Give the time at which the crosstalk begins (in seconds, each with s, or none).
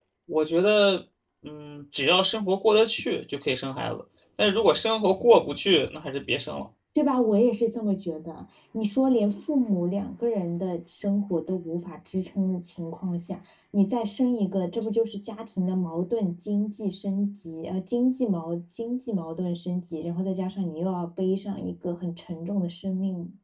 none